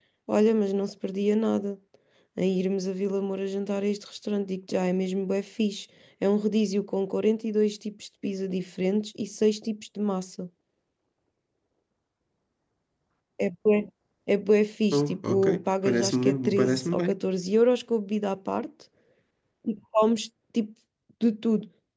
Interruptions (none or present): present